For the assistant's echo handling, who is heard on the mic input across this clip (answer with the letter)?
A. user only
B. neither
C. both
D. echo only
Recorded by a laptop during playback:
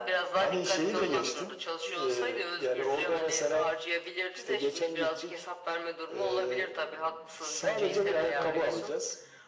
C